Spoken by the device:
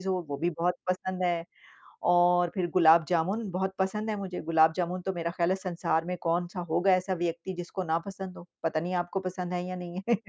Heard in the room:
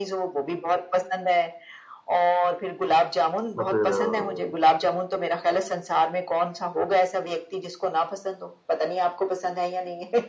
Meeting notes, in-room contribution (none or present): present